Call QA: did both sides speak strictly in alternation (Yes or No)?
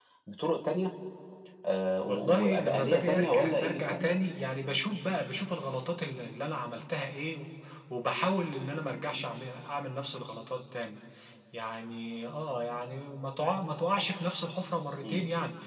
No